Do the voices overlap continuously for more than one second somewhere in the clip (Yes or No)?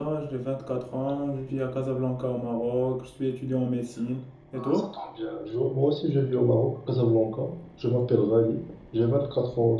No